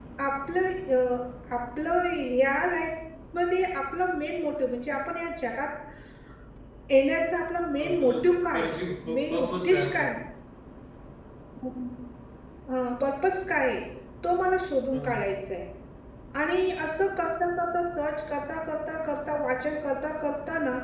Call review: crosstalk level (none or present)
present